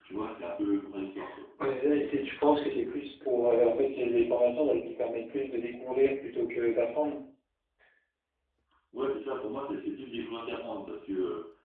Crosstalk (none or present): none